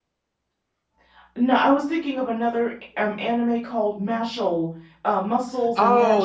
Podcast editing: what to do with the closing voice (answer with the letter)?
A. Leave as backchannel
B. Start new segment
B